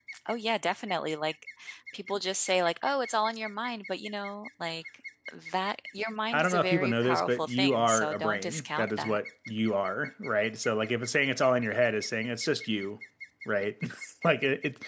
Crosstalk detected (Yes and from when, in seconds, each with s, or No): Yes, from 6.3 s